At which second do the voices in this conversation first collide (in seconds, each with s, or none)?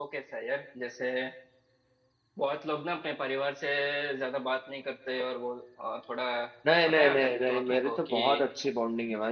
6.9 s